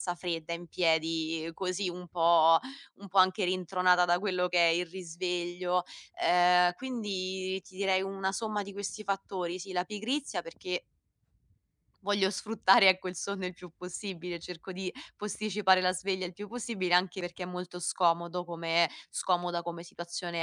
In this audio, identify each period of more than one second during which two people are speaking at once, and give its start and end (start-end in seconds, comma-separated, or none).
none